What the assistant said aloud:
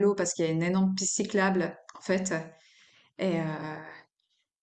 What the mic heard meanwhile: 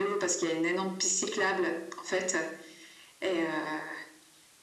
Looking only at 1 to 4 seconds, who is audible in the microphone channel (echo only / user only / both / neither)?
echo only